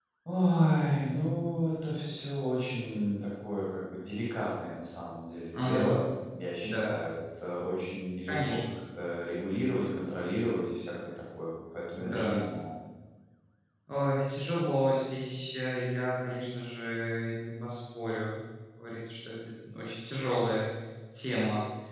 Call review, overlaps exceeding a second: none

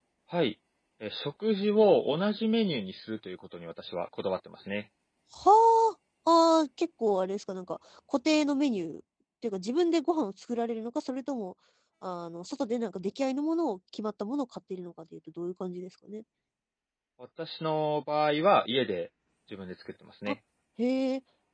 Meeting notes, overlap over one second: none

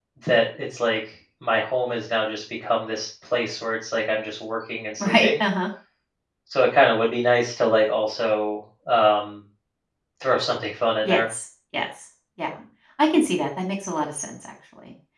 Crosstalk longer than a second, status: none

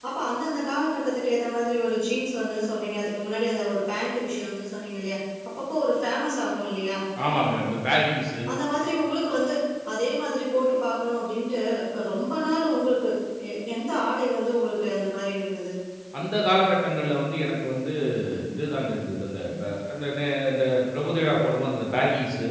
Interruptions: none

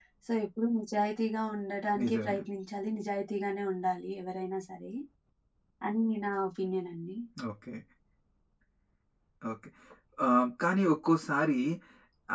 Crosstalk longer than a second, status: none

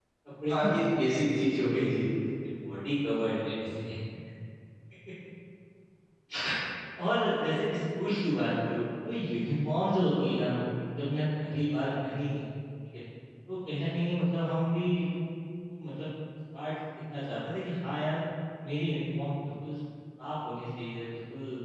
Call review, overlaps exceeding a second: present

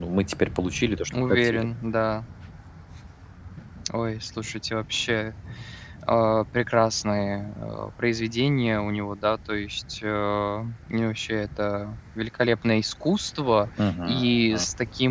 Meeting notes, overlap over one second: none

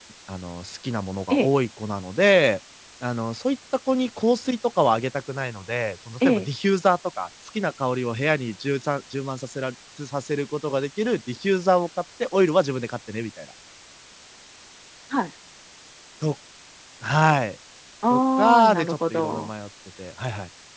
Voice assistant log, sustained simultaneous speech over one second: present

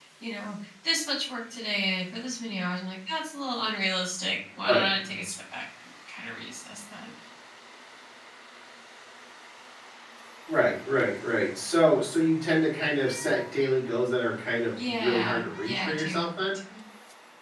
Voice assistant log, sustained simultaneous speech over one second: present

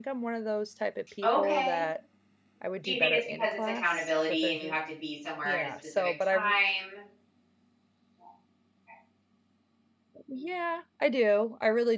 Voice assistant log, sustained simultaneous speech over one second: present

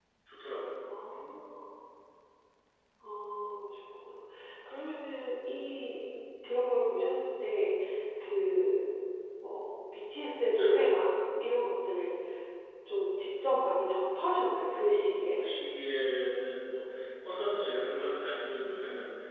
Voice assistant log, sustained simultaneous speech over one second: none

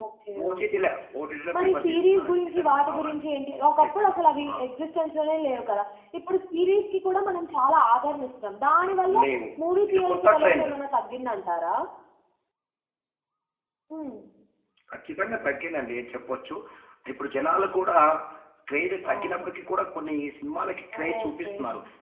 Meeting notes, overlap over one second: present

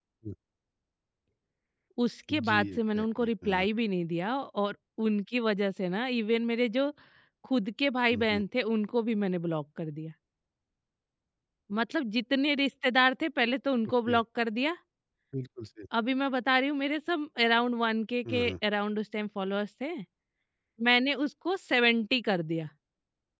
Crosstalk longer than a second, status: present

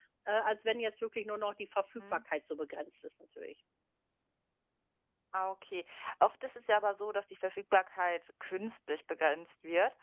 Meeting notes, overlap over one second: none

